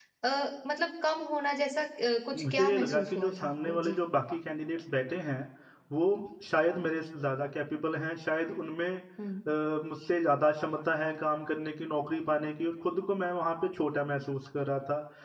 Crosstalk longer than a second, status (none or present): present